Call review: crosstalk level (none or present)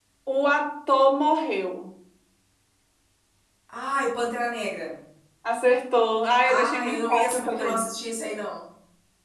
present